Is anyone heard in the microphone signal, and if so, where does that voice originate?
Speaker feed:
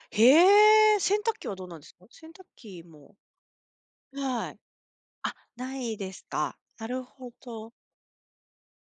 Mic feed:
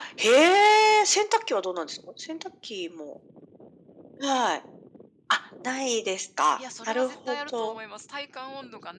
both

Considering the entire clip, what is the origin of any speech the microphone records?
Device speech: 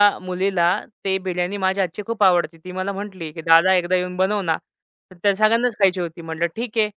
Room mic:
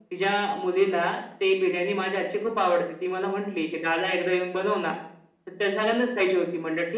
echo only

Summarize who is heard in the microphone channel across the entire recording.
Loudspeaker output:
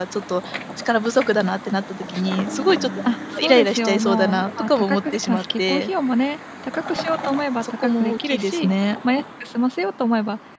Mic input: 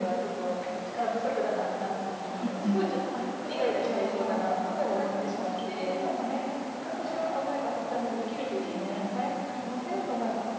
both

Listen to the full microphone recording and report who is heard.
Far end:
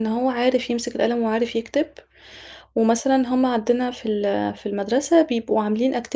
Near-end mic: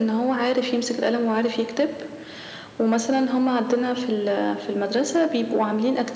echo only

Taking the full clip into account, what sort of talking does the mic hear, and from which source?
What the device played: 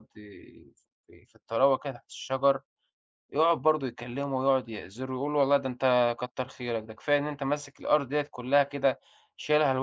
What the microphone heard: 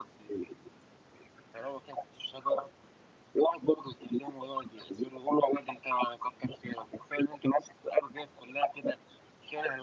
echo only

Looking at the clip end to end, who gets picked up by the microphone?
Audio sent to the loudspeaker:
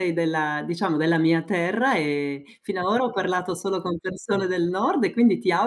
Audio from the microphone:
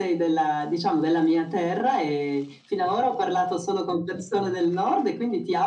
echo only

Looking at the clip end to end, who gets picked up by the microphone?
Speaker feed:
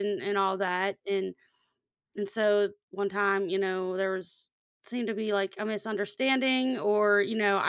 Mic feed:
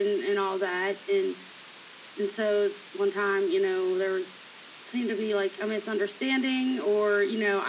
echo only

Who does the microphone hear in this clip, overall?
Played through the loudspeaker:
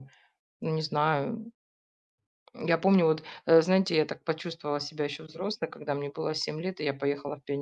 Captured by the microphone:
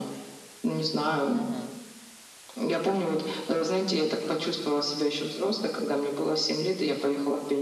both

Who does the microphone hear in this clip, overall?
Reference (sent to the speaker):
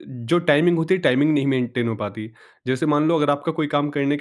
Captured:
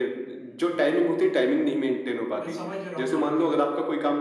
both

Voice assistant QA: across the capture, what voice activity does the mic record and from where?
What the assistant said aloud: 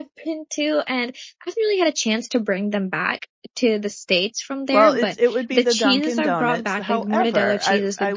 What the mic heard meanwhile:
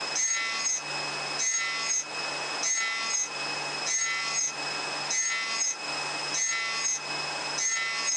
neither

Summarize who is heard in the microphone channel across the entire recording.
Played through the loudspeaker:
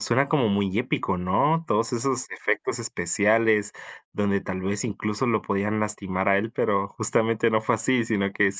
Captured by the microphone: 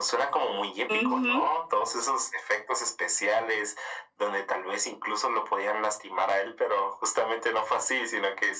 both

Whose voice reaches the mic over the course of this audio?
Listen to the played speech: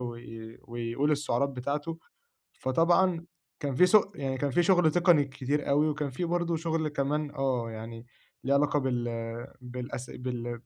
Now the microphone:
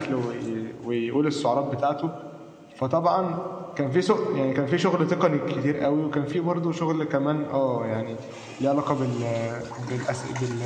echo only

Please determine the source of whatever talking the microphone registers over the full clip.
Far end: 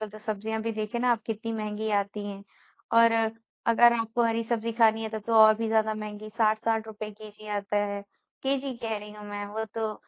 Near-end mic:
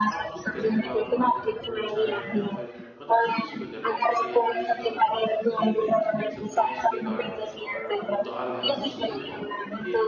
both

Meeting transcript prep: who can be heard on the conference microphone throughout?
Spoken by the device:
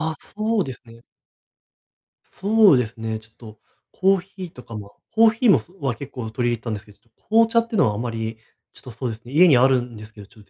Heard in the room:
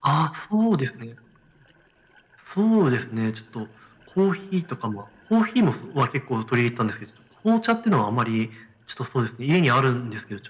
echo only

